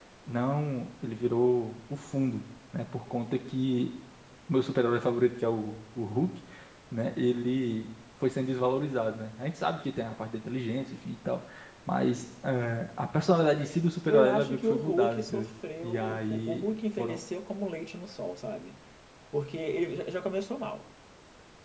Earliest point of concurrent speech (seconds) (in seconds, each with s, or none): 14.1 s